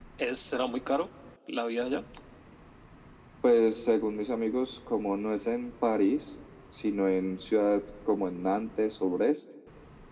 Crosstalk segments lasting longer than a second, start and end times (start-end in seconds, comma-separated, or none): none